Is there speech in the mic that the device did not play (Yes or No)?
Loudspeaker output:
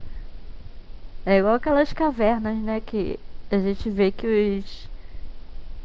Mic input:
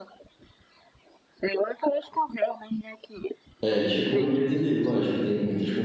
Yes